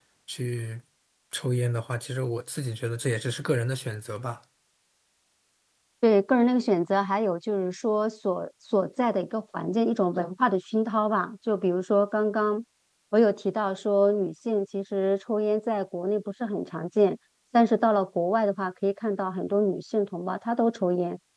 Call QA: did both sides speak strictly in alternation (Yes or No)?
Yes